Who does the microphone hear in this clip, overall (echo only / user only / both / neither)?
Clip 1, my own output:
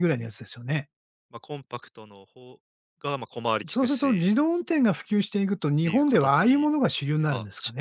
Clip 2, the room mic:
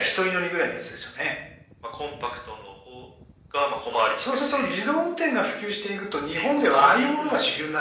both